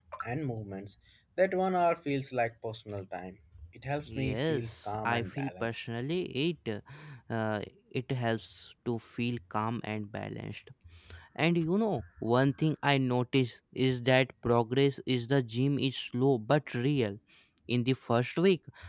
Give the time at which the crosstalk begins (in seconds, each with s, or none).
4.0 s